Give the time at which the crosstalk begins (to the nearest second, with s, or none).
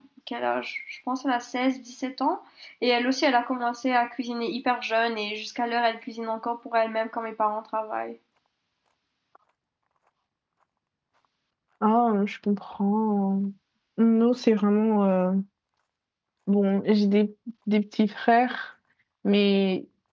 none